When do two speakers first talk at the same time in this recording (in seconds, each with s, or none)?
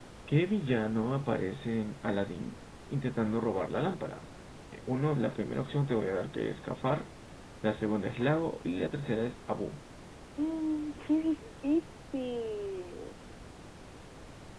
none